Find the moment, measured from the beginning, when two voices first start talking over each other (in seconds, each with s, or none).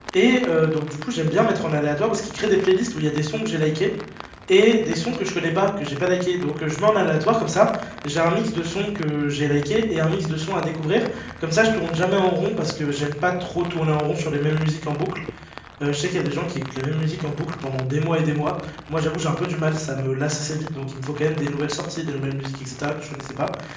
none